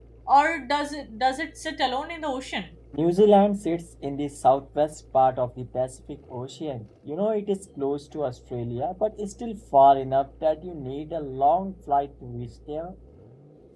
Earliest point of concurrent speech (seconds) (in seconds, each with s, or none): none